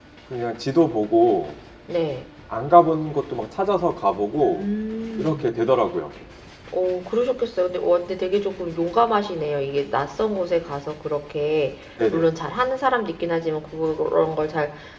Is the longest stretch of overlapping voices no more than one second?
Yes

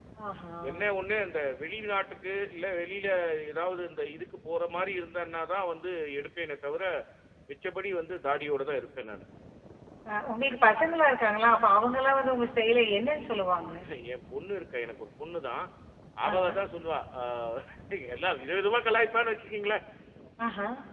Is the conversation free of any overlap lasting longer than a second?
Yes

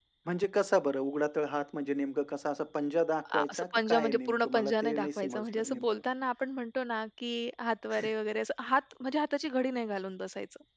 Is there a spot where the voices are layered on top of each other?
Yes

